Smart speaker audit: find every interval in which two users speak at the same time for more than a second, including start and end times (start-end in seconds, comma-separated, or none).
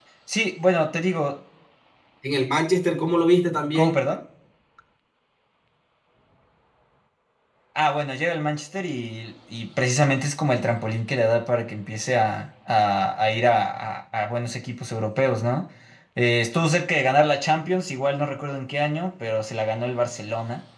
none